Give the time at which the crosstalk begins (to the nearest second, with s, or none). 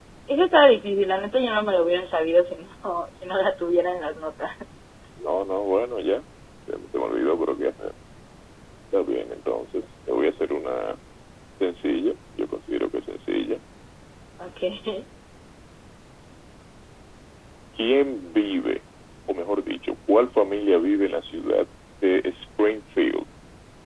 none